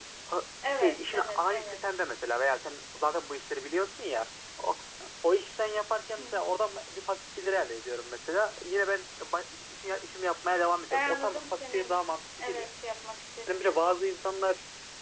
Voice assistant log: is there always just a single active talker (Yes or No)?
No